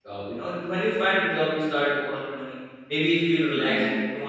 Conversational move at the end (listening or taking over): listening